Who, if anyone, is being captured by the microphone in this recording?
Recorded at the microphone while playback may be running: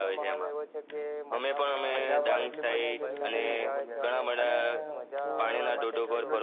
both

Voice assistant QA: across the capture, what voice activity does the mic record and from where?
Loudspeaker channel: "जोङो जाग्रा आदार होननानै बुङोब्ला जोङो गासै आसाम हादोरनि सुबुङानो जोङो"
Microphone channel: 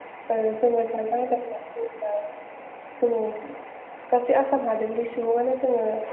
echo only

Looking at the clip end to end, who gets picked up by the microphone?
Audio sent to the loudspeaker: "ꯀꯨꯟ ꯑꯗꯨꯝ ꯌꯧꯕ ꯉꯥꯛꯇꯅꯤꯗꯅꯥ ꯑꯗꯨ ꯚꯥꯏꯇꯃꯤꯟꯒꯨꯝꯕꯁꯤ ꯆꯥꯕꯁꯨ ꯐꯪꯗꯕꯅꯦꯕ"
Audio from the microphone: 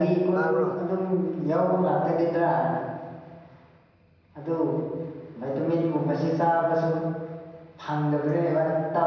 both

